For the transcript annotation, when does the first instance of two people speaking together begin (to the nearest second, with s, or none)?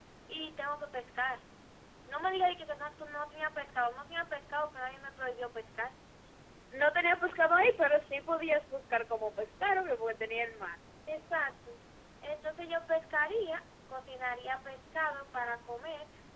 none